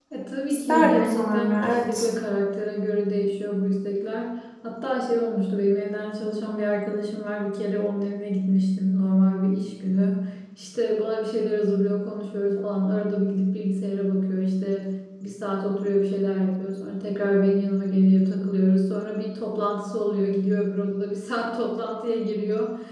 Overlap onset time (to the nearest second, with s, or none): 1 s